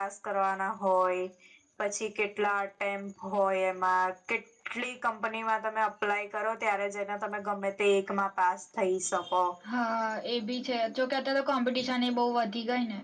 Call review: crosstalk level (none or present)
none